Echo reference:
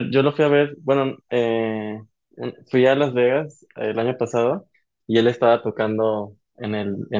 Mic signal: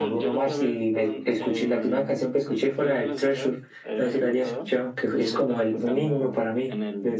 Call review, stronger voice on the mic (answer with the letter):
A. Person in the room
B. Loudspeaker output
A